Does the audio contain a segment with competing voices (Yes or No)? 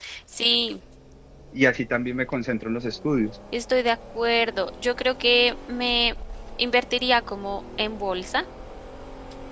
No